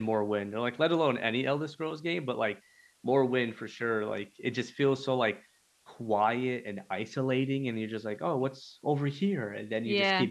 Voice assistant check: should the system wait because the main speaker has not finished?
Yes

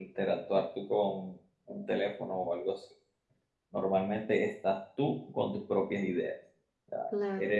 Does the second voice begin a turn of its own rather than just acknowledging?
No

